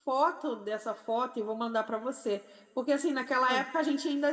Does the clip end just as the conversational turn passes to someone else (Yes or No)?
No